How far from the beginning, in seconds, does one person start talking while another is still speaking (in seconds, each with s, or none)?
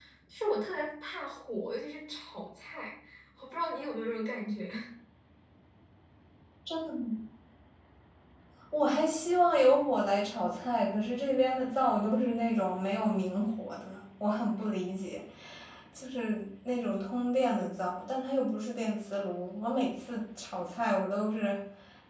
none